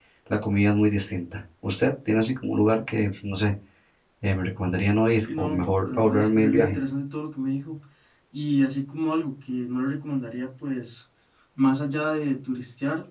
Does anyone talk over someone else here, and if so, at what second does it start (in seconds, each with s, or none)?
5.2 s